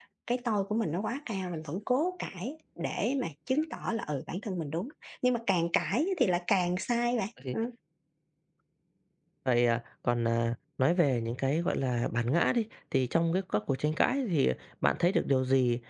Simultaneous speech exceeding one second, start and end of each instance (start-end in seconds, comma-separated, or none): none